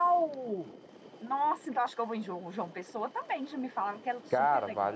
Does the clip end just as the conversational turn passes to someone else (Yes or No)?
Yes